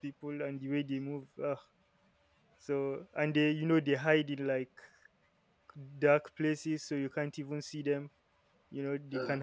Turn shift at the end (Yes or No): No